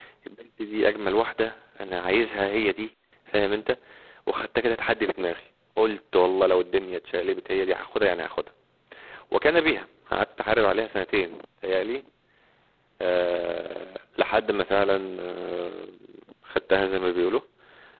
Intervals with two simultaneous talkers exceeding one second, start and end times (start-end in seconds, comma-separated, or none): none